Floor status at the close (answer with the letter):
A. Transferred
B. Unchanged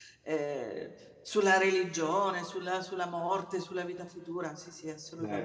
A